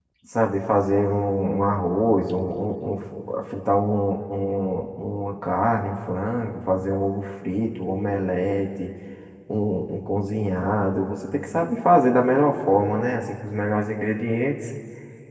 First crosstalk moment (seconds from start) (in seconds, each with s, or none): none